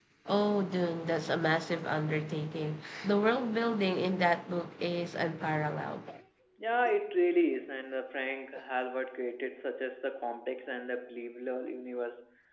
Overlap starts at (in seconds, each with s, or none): none